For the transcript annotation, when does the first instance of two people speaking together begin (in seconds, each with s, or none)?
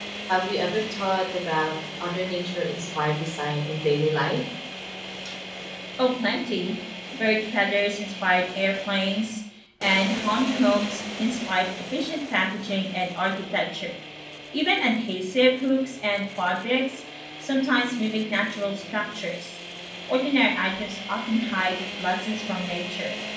none